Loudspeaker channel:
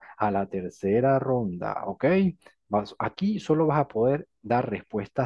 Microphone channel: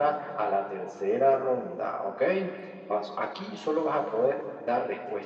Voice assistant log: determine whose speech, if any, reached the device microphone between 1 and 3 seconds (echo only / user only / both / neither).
echo only